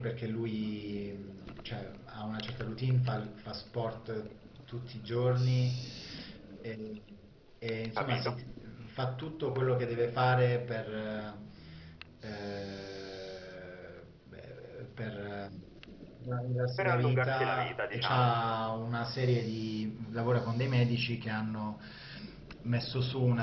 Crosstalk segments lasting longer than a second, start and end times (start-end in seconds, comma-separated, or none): 16.8-18.3